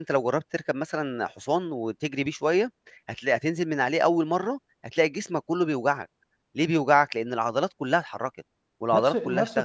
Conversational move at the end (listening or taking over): taking over